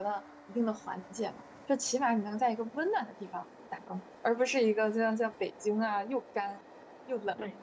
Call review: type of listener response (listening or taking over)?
taking over